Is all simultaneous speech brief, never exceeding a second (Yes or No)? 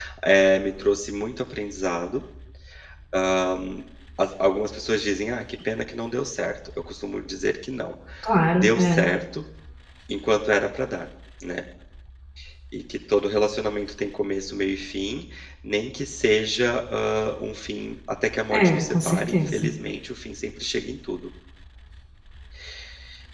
No